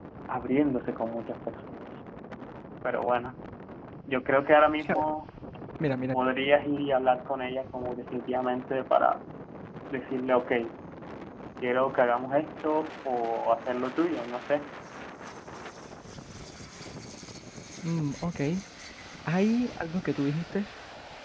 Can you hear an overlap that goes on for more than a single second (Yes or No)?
No